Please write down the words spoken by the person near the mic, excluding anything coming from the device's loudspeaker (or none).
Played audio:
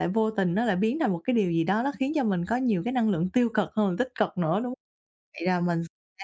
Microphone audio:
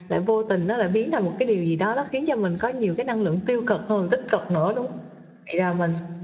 none